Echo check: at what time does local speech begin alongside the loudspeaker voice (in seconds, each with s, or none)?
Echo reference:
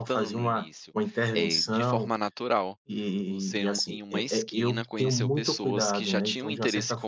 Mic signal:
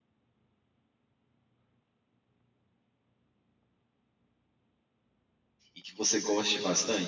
5.7 s